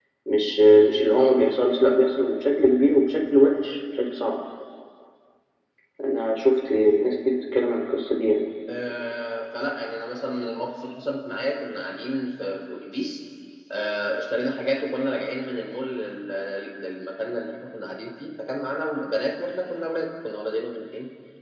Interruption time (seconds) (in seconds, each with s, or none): none